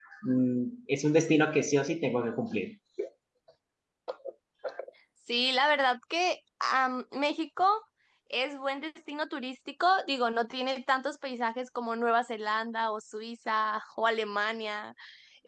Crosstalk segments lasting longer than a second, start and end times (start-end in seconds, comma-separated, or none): none